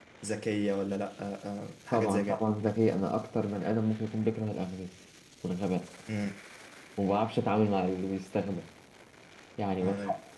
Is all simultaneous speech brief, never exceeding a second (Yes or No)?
Yes